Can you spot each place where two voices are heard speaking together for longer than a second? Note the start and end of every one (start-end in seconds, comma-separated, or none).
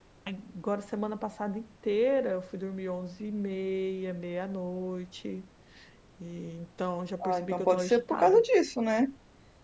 7.2-8.4